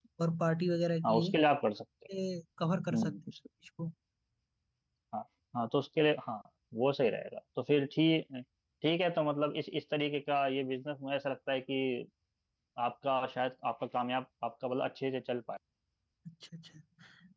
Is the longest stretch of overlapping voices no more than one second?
Yes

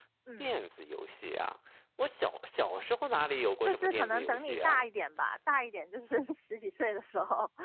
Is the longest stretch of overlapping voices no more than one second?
No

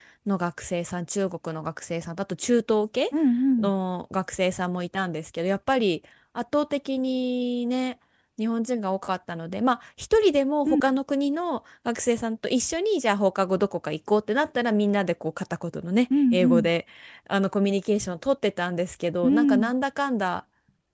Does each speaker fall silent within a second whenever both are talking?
Yes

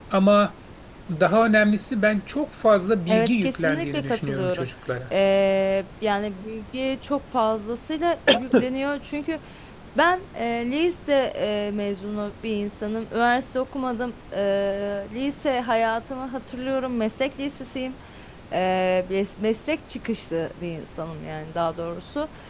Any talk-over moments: Yes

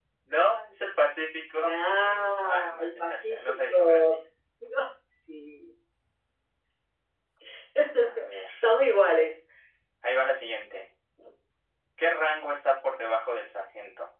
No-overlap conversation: No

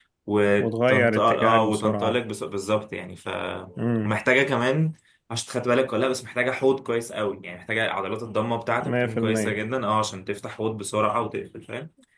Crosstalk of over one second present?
Yes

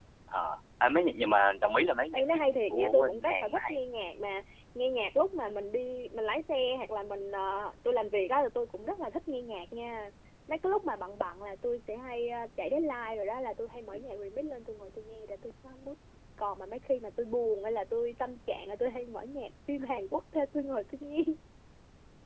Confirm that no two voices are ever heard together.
No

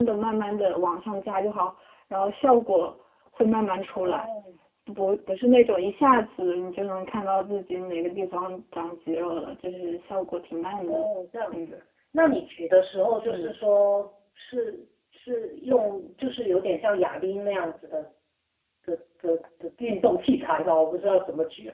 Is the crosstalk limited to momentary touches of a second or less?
Yes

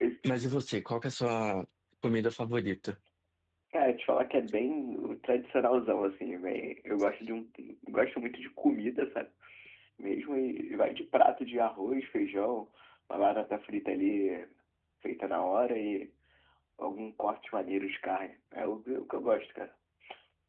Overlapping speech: No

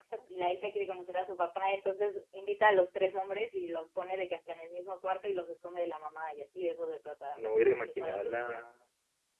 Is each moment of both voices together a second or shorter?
No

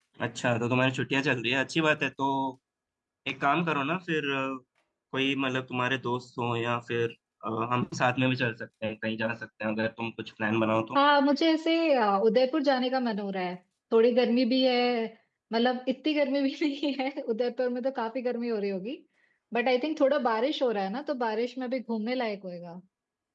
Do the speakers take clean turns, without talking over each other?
Yes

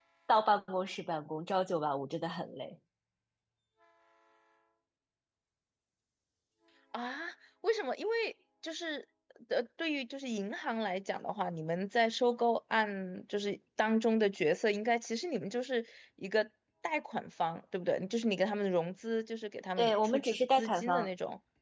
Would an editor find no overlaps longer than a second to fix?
No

